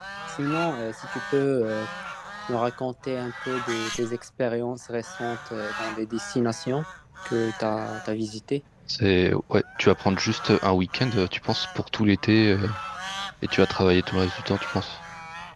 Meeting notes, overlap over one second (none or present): none